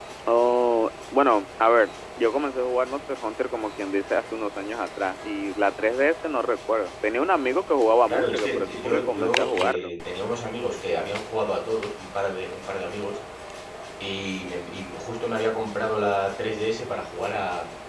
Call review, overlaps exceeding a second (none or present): present